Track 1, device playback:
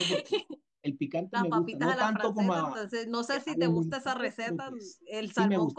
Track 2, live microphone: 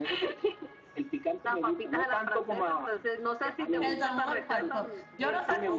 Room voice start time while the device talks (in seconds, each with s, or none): 3.8 s